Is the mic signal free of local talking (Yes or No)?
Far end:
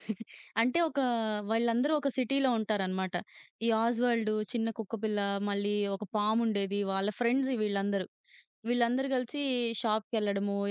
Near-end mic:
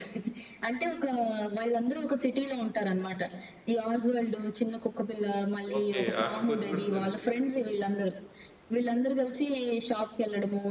No